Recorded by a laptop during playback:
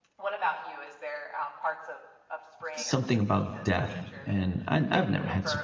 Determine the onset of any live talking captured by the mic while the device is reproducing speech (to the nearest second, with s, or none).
3 s